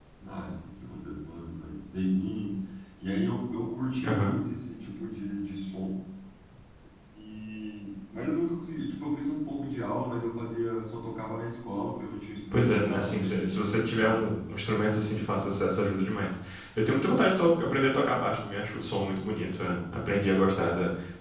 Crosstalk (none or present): present